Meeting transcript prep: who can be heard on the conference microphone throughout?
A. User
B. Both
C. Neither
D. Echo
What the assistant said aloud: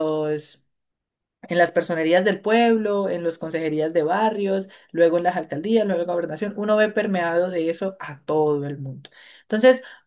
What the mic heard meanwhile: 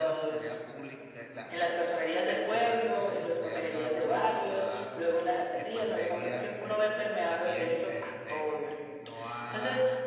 B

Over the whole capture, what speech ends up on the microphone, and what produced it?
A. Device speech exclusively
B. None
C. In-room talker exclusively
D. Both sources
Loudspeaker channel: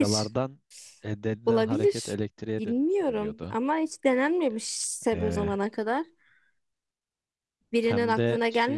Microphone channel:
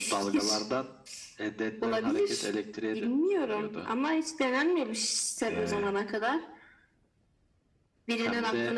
A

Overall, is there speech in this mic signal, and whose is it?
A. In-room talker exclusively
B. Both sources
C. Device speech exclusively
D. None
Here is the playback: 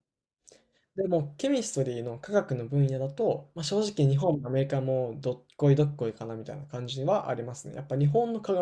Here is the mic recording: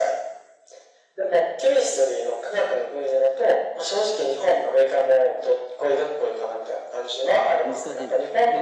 B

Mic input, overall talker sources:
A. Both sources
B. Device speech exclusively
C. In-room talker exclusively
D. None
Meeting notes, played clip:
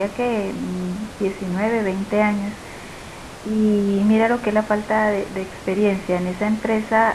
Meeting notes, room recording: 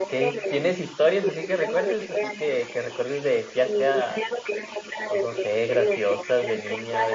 A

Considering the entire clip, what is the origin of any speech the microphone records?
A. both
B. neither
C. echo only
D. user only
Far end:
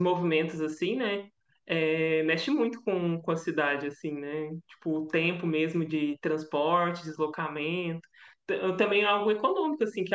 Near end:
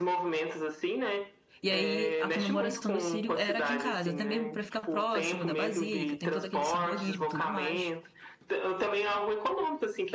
A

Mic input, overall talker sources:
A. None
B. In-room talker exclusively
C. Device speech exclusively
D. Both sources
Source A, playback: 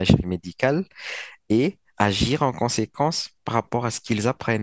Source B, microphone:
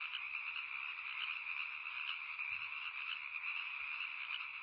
A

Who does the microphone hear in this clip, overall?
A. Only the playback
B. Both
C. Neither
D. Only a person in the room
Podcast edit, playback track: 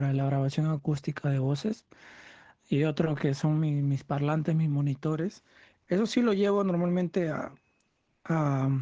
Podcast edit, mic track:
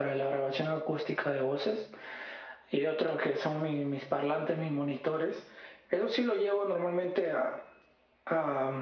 A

